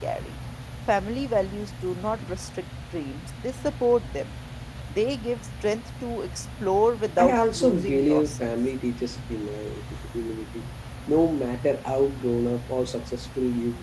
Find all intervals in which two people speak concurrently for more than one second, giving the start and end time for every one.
7.2-8.5

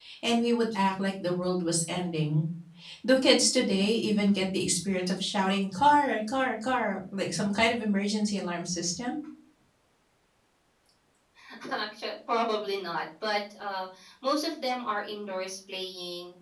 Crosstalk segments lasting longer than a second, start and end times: none

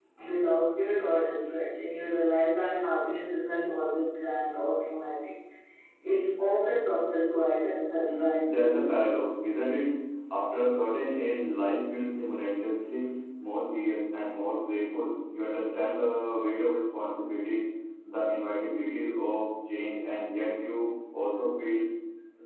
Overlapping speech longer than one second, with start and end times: 8.0-9.2

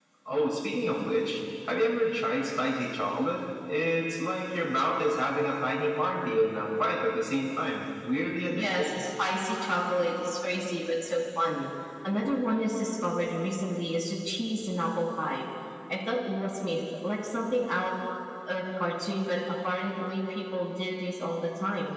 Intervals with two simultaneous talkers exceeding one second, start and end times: none

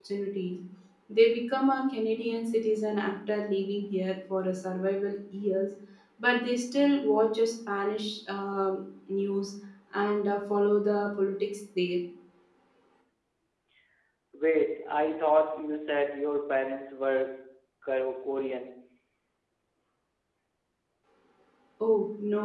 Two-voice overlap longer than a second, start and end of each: none

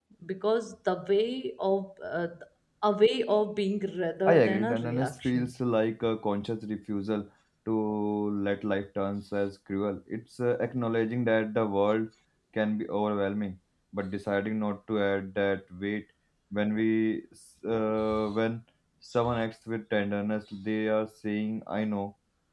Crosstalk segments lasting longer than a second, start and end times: 4.2-5.5

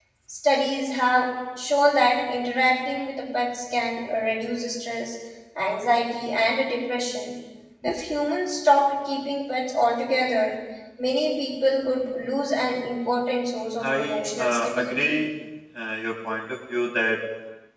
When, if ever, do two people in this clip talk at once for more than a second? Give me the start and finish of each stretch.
13.8-15.1

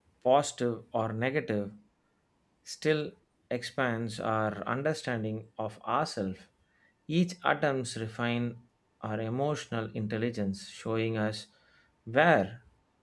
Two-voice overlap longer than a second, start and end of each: none

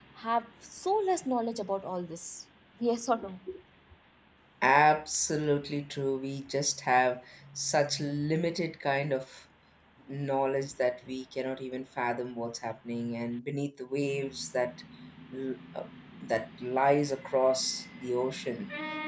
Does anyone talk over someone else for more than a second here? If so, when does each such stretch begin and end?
none

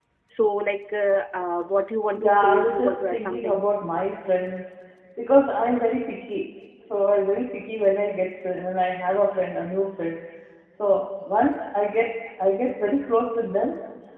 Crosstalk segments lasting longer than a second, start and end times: 2.1-3.6

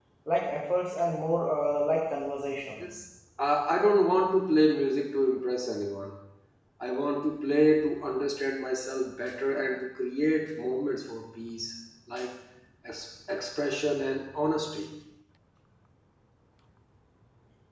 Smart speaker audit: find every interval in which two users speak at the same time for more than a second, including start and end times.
none

